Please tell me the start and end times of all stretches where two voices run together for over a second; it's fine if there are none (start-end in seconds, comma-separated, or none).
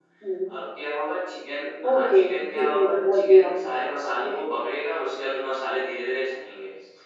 1.9-3.5